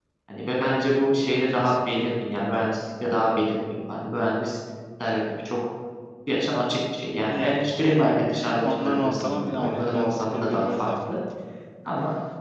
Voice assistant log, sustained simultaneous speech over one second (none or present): present